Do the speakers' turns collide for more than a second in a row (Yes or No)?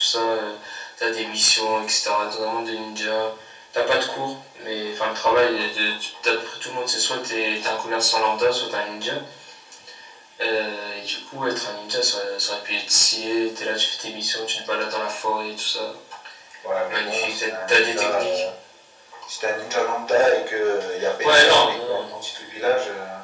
Yes